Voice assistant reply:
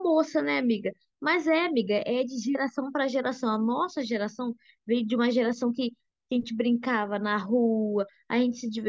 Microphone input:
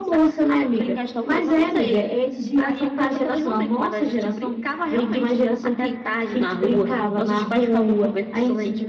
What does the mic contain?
both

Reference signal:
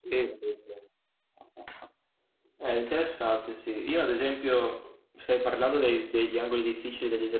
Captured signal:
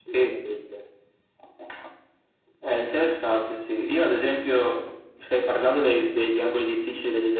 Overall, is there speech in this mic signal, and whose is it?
echo only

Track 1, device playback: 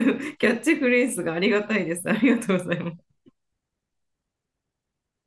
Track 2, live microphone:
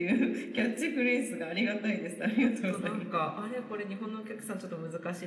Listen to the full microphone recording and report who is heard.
both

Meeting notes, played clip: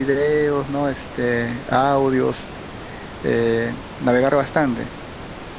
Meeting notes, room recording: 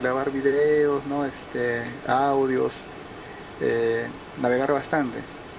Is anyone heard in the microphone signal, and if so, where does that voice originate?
echo only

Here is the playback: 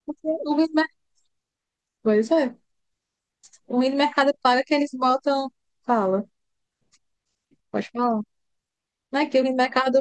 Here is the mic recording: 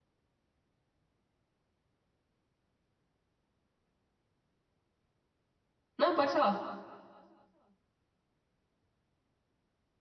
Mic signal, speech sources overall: user only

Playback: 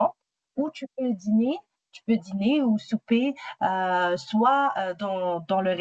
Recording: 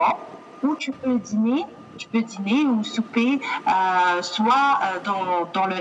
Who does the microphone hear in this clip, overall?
echo only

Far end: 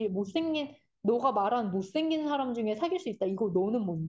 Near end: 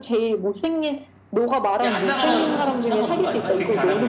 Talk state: both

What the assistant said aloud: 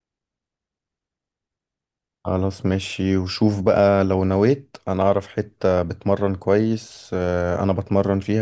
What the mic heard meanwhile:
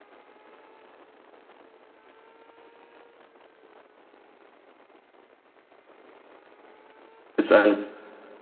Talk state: user only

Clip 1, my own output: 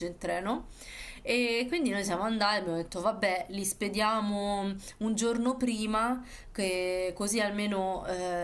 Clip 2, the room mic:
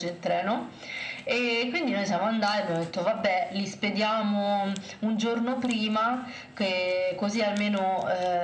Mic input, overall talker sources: echo only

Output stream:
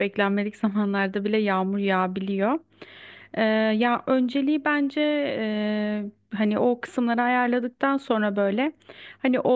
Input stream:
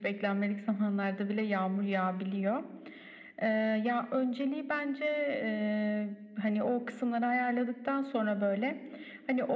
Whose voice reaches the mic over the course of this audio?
echo only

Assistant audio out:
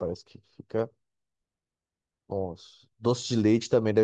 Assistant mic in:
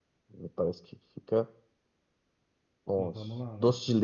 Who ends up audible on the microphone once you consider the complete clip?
both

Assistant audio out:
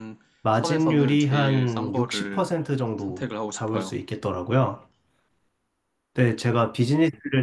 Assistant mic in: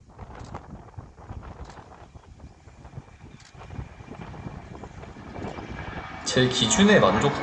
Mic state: user only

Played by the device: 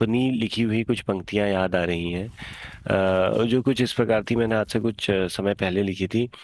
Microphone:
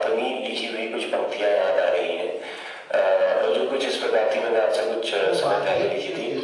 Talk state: both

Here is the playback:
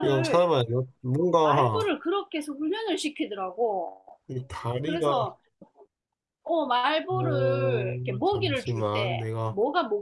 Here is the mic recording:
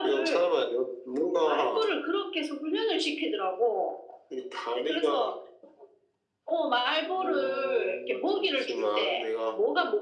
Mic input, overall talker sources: echo only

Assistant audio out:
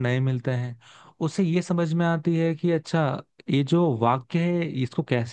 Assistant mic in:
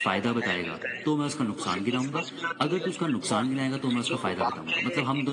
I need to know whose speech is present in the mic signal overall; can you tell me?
both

